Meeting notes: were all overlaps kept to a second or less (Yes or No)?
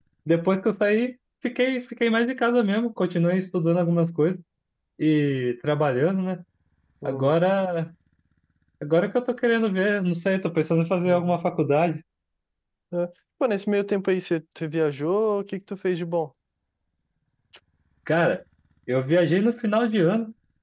Yes